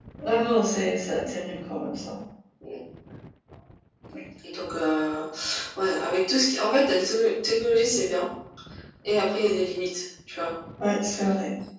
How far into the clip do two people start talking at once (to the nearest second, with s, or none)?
none